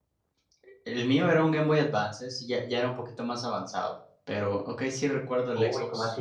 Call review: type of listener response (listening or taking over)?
taking over